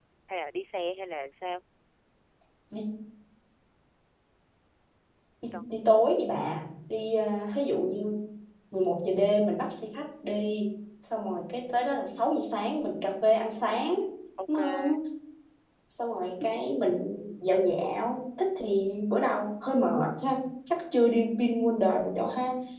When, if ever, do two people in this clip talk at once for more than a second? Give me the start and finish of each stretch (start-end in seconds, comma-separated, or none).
none